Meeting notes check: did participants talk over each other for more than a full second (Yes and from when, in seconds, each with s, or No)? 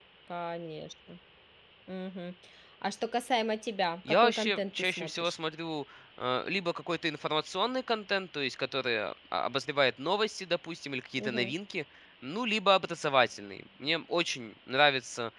Yes, from 4.1 s